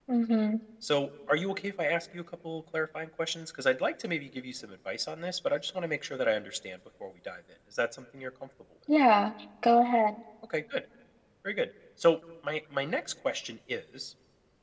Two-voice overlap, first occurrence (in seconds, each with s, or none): none